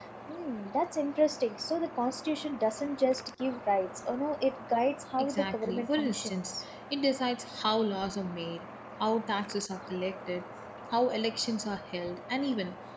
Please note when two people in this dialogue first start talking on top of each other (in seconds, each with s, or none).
5.2 s